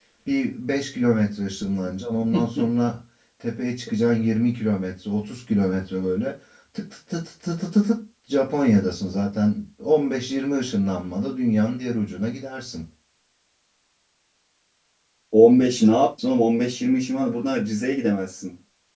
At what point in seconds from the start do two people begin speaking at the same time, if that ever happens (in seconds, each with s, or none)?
none